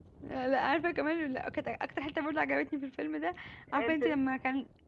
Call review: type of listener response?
listening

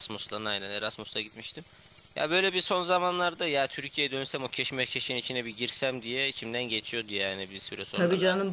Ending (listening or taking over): taking over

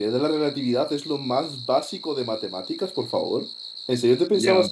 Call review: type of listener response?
taking over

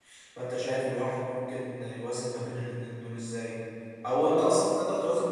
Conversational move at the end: listening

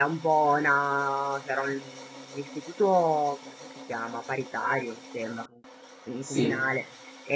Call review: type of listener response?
listening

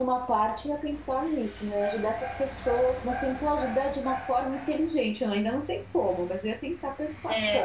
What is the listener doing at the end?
taking over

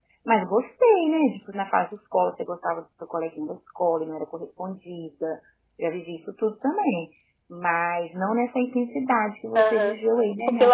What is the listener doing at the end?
taking over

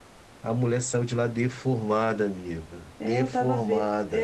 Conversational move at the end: taking over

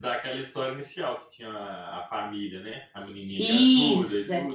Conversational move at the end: taking over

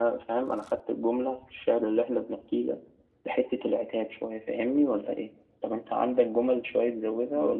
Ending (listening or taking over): taking over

